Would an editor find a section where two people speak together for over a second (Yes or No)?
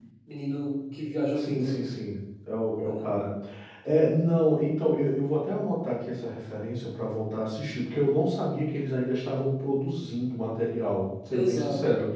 No